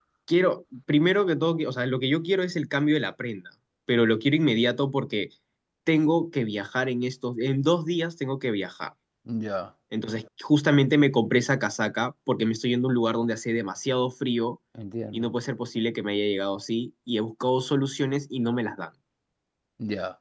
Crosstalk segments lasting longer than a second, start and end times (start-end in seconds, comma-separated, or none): none